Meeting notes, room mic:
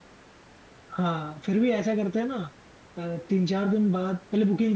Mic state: user only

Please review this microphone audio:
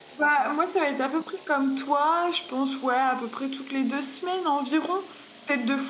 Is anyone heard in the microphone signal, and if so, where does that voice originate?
user only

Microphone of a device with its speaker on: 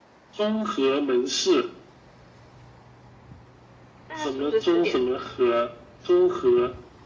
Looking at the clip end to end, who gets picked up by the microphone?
both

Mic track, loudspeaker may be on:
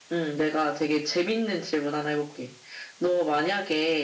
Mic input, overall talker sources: echo only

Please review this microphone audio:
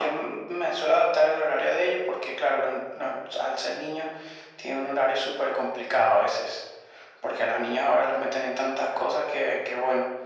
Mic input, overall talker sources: echo only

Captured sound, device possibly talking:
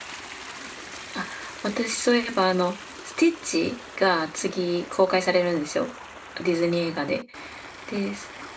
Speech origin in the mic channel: user only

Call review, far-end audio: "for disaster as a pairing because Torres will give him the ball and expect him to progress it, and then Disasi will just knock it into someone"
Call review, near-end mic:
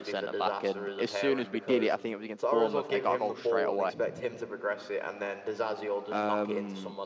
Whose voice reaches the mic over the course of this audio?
both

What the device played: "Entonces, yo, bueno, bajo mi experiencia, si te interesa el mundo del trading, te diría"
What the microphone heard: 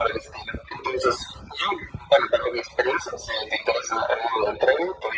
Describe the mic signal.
echo only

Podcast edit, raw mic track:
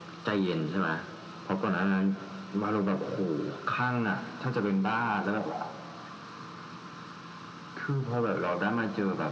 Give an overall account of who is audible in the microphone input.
echo only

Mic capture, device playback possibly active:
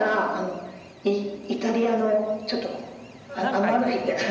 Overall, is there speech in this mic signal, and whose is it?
both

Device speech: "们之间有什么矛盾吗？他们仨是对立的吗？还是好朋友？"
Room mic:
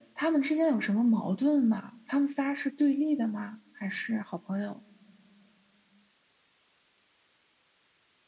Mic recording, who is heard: echo only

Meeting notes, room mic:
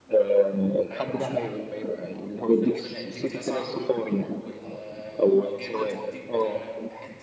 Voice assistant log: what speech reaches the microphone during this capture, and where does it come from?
both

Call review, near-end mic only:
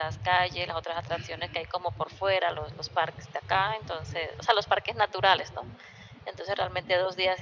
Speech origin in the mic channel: echo only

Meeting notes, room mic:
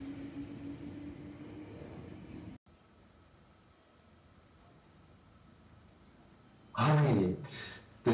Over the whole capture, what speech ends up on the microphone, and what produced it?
user only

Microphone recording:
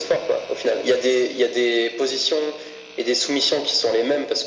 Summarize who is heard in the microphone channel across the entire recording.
echo only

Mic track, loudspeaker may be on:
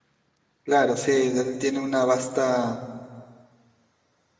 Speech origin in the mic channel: user only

